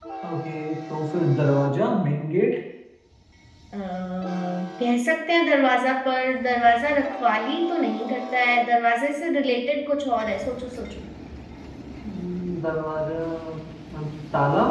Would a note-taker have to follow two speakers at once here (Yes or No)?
No